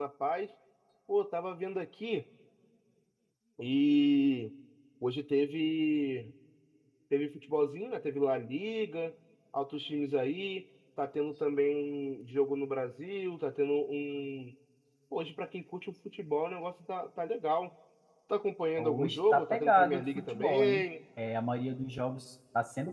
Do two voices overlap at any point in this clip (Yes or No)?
Yes